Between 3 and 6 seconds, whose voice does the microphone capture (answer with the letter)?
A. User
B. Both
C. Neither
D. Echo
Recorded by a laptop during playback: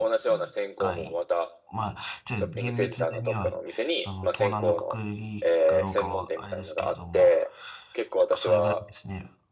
B